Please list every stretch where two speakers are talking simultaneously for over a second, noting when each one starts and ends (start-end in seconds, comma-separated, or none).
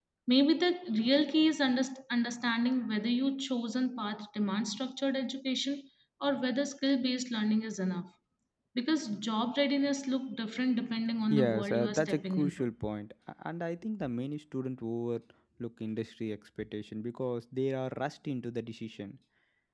11.3-12.7